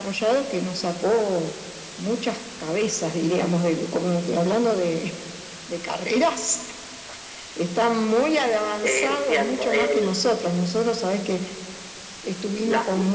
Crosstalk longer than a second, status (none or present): present